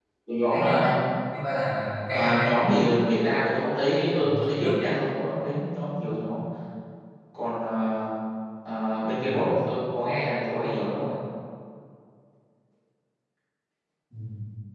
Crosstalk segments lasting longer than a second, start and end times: none

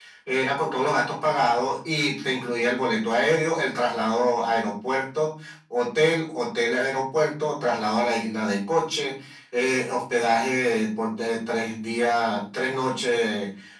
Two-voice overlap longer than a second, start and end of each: none

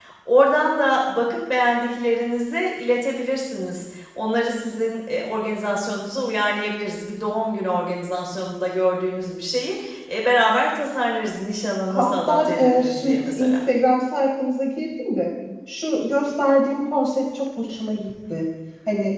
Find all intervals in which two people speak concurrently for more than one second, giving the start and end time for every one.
11.9-13.5

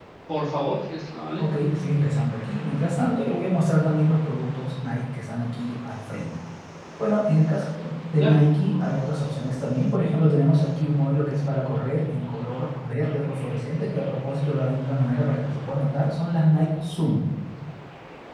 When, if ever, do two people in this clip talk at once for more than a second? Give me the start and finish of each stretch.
none

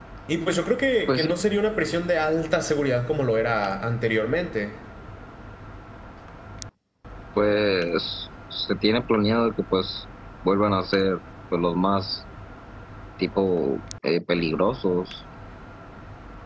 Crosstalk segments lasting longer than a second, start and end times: none

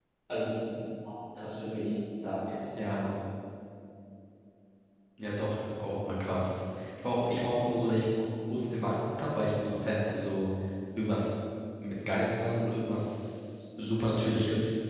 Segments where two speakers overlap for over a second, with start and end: none

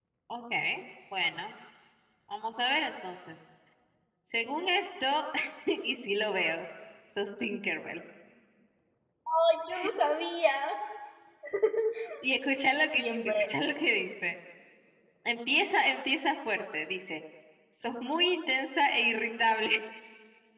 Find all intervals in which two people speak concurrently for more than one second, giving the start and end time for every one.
none

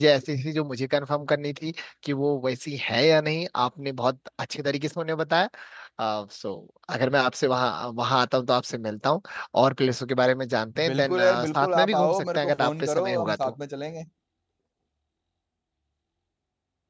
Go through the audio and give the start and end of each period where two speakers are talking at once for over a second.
10.9-13.5

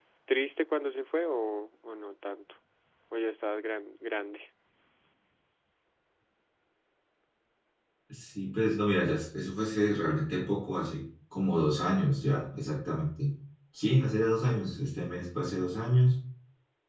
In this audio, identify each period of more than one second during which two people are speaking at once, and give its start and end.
none

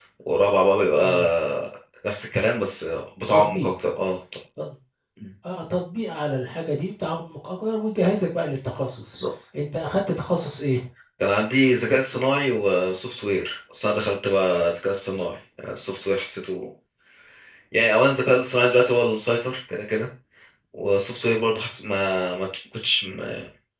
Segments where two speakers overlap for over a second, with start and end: none

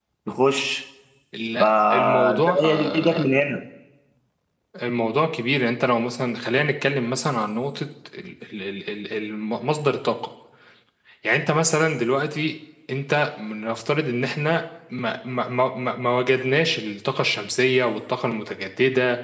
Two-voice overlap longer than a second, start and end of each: 1.6-3.2

